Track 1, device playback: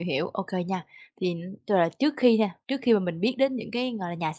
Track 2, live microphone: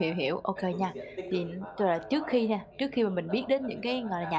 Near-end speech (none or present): present